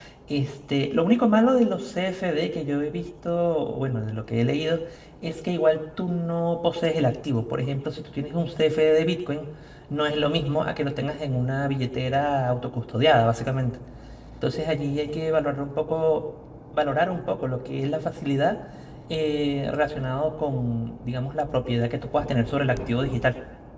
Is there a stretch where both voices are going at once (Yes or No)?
No